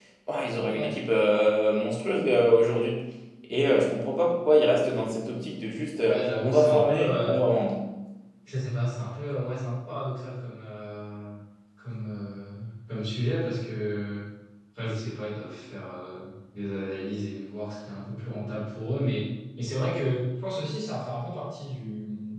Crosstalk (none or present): present